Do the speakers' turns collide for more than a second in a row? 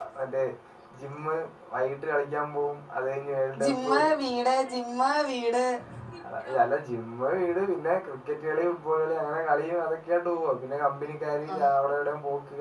No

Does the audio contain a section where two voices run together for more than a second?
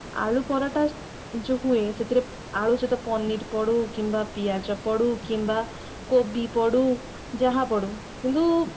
No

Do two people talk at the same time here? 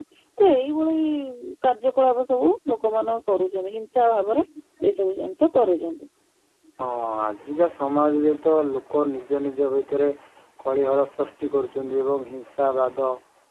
No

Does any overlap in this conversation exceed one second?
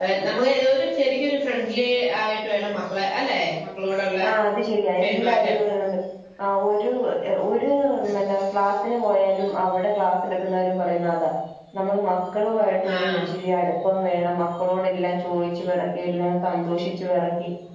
No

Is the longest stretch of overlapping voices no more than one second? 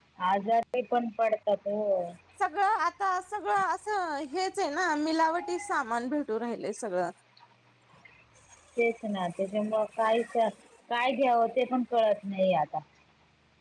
Yes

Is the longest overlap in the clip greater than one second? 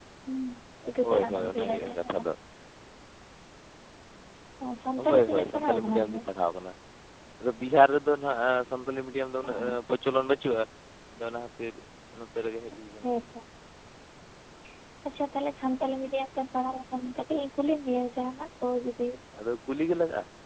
Yes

